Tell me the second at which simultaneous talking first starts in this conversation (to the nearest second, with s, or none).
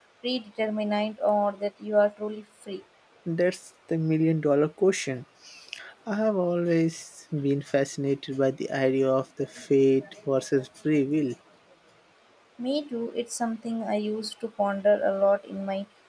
none